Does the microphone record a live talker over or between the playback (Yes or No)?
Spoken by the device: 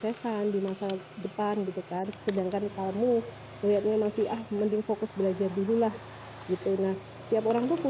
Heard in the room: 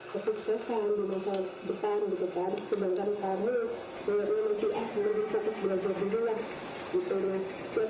No